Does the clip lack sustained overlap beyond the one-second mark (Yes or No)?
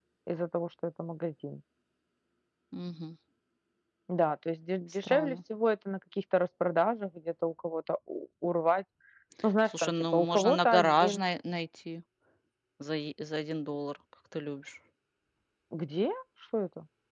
No